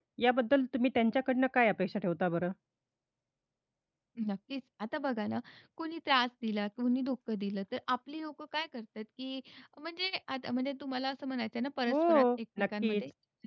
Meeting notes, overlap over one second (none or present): none